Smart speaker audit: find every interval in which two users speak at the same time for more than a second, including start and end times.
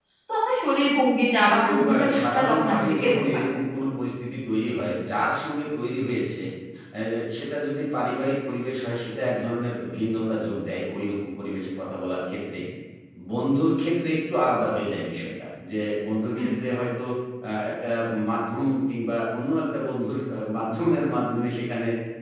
1.5-3.4

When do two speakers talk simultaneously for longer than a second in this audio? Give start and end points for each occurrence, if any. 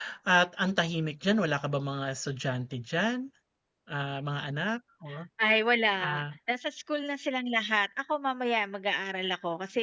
none

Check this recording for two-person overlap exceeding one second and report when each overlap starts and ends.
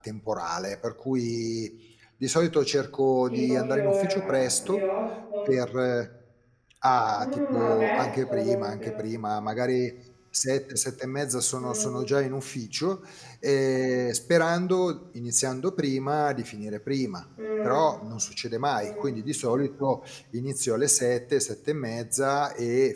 3.3-4.8, 7.2-9.0

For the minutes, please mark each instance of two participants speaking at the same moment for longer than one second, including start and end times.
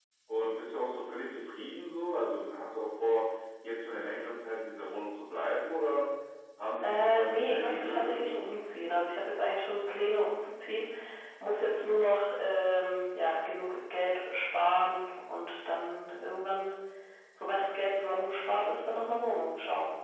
6.8-8.4

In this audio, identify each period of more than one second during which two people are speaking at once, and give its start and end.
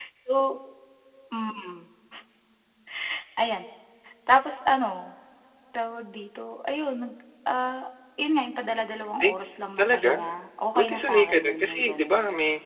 10.8-12.1

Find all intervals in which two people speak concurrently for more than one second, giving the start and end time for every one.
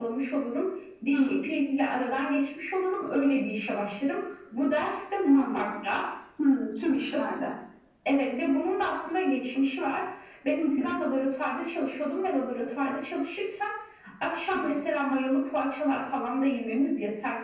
none

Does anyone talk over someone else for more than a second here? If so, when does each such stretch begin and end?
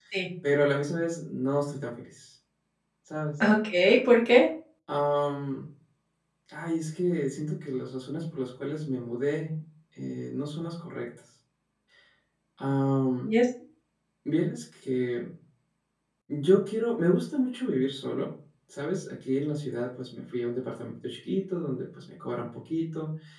none

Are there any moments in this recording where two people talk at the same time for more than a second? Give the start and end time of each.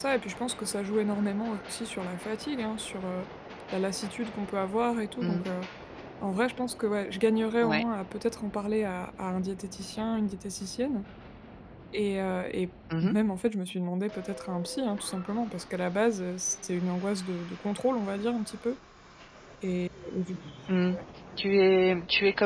none

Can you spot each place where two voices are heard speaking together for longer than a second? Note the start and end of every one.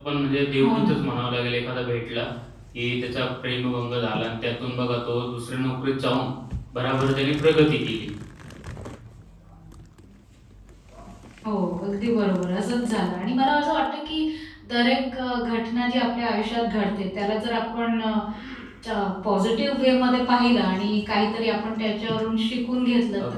none

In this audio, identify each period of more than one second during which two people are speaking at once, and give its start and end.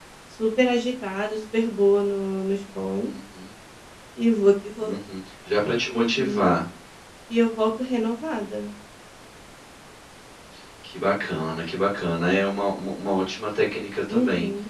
none

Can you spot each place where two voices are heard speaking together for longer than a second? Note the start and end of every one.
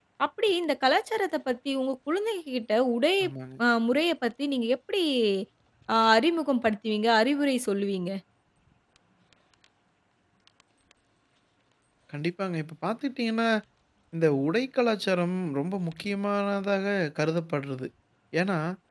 none

